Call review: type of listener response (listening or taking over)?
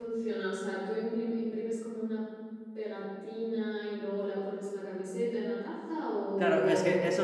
taking over